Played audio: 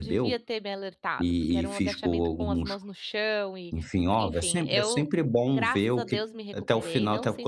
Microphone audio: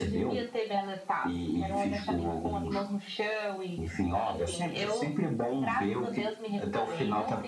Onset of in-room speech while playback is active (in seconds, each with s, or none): none